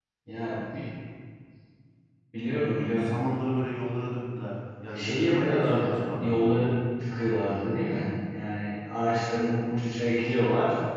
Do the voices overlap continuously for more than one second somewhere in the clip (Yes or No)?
Yes